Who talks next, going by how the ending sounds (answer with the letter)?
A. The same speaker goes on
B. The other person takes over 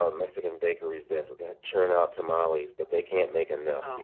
B